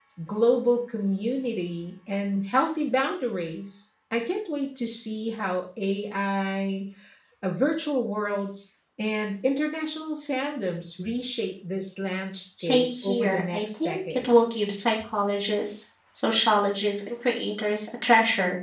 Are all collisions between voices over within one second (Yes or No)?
No